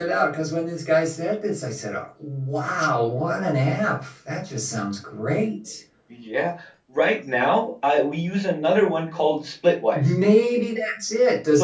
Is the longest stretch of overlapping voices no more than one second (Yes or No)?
Yes